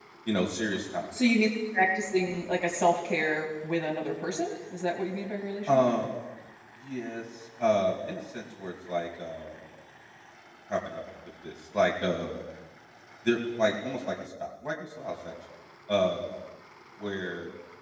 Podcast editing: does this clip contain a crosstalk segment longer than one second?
No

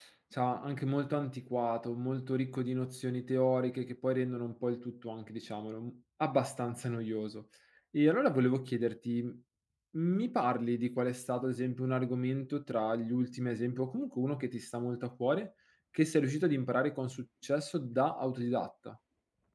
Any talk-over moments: No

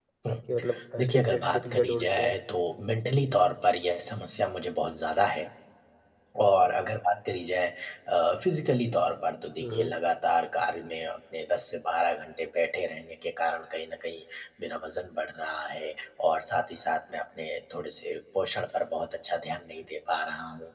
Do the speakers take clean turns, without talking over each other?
No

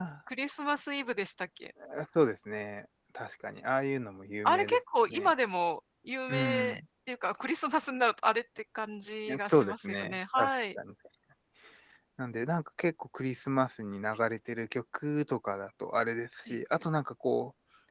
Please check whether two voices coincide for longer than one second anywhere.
Yes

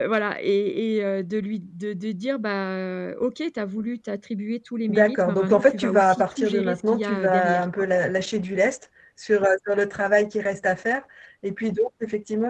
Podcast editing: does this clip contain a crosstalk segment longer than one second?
Yes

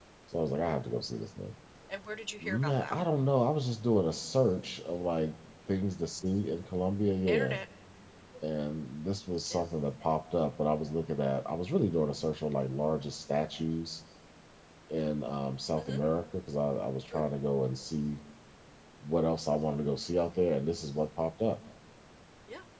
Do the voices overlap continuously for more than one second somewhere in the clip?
No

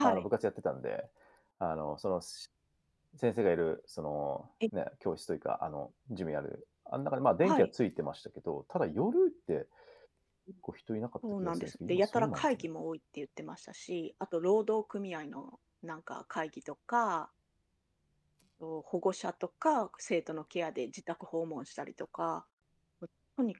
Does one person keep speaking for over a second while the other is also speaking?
Yes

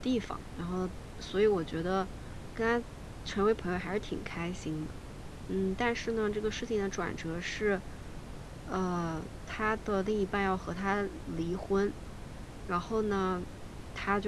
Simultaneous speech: No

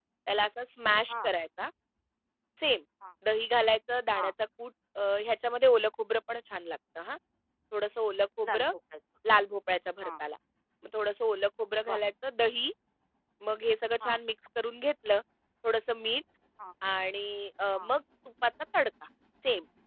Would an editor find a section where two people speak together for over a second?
No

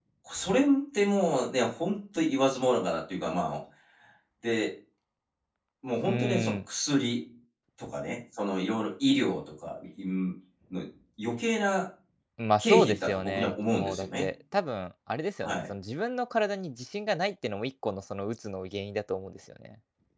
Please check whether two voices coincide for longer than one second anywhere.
Yes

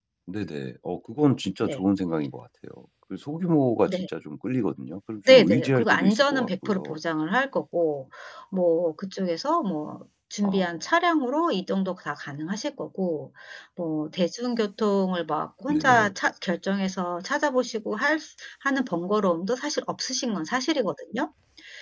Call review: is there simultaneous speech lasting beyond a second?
Yes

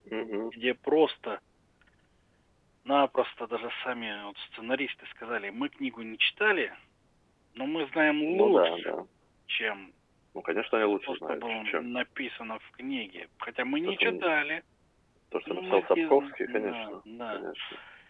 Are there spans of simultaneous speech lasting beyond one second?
Yes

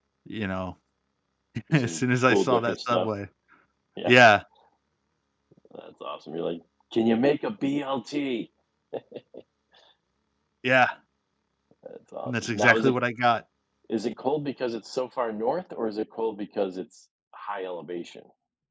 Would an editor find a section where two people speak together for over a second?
Yes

